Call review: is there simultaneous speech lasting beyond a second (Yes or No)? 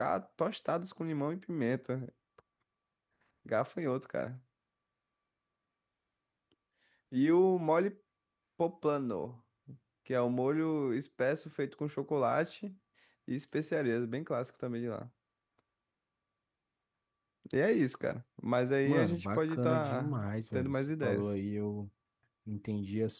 Yes